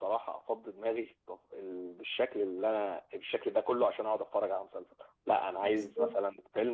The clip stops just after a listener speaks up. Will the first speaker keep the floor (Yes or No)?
Yes